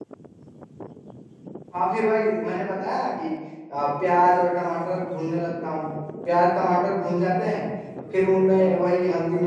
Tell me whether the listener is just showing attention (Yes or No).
Yes